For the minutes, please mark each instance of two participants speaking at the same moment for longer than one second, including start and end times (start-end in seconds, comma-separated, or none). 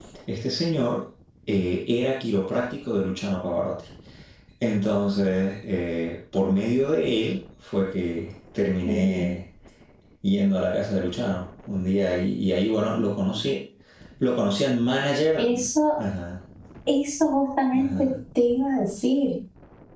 none